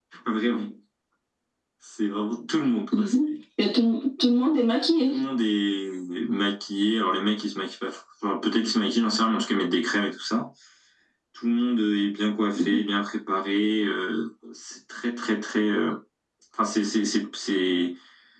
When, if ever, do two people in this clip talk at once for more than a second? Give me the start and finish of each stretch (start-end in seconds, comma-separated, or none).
none